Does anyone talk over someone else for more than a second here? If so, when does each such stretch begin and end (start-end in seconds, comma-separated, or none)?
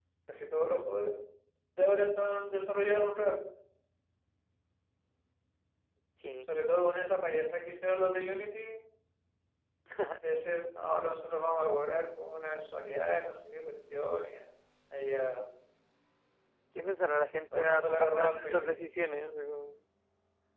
17.5-18.9